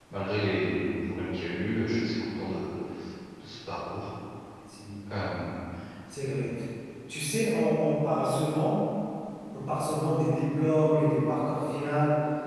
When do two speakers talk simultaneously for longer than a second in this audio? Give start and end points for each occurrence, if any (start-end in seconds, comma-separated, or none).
none